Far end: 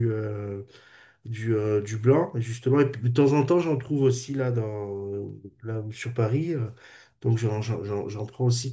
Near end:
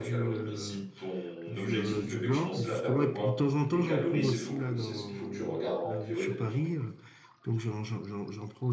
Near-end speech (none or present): present